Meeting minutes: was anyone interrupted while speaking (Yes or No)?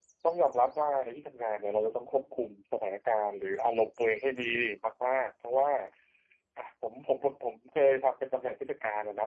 No